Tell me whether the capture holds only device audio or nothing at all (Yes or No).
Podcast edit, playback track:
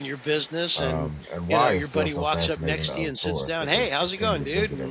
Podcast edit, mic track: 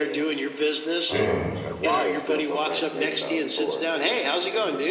No